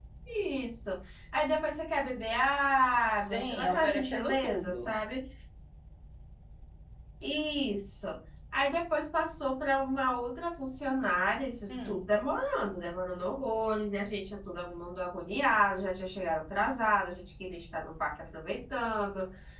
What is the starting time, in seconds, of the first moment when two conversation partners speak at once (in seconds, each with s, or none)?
3.2 s